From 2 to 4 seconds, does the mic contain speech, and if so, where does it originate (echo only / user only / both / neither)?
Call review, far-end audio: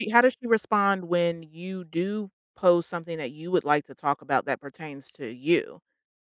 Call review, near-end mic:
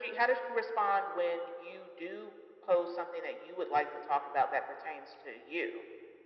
echo only